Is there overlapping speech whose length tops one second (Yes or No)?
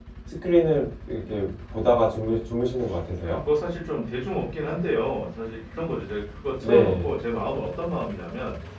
No